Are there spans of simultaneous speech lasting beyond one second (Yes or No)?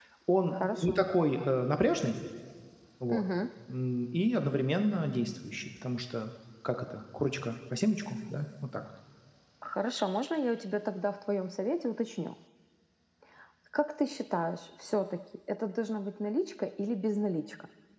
No